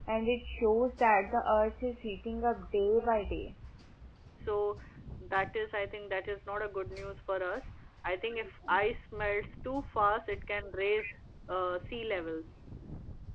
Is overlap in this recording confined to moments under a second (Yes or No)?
Yes